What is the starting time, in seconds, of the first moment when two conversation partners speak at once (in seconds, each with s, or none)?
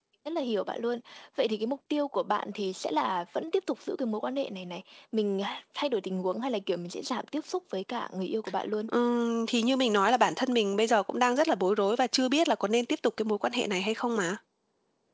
none